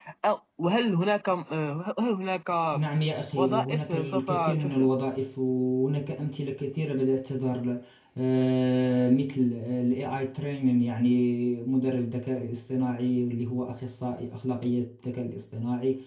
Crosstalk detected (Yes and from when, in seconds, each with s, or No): Yes, from 3.4 s